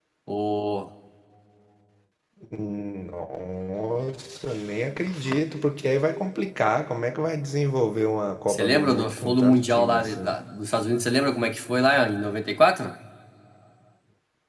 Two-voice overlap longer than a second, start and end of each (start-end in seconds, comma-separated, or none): 8.5-10.3